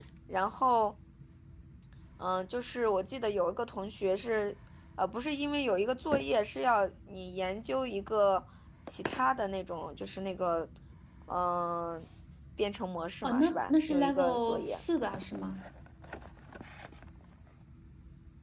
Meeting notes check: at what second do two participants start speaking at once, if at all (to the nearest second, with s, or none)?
13 s